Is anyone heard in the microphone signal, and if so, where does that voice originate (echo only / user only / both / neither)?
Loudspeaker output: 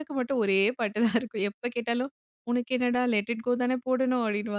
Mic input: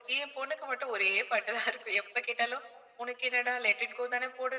echo only